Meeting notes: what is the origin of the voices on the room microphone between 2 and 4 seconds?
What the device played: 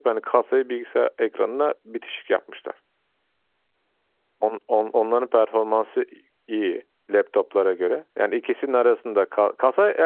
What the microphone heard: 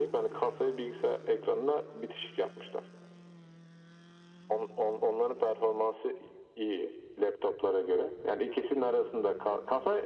echo only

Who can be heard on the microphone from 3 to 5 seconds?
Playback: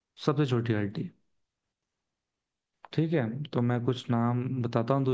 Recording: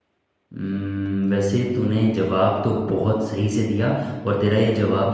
user only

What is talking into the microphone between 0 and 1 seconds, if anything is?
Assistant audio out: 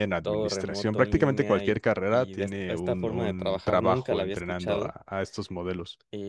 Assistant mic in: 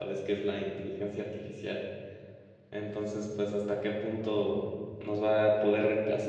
user only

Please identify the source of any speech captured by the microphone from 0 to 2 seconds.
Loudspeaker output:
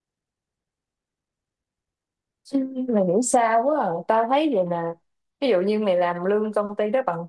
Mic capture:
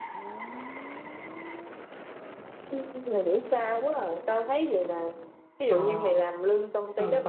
neither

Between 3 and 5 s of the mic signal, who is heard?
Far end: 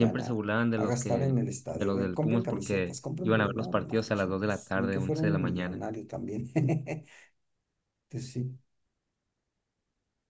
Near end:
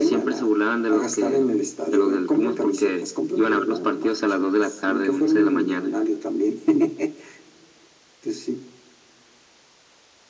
echo only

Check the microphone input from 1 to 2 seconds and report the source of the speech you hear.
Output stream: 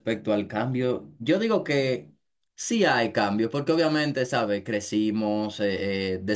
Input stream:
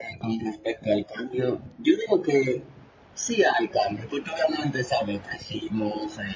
echo only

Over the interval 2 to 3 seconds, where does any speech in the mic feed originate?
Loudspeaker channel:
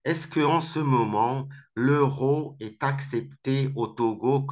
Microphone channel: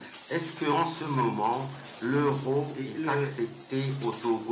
both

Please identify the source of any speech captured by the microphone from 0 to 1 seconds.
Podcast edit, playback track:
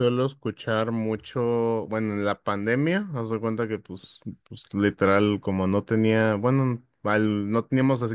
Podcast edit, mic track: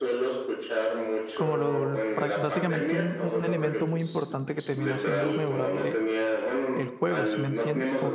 echo only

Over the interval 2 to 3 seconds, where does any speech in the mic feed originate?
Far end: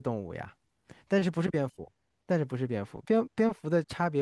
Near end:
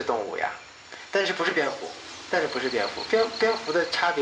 echo only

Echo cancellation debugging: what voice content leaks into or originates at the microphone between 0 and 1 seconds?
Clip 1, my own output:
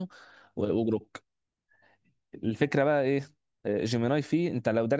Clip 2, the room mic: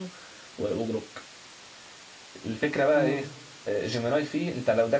echo only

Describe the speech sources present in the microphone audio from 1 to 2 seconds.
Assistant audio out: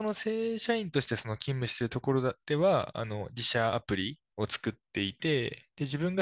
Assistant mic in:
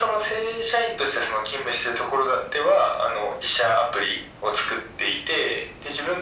echo only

